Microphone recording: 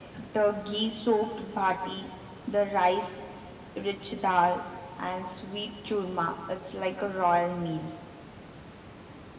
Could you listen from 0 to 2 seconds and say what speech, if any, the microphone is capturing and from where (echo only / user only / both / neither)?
echo only